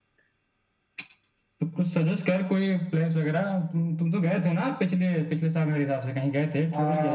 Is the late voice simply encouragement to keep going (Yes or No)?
No